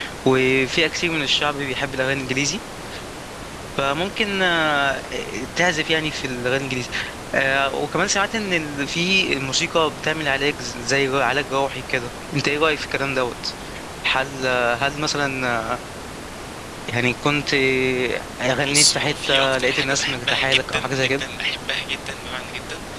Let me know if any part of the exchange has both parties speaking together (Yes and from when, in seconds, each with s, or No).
Yes, from 18.7 s